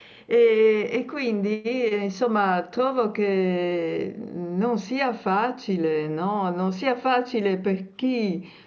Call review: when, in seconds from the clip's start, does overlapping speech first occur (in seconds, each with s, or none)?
none